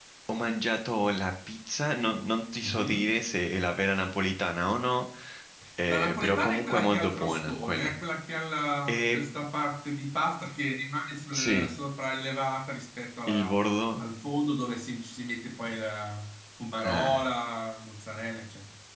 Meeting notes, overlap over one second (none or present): present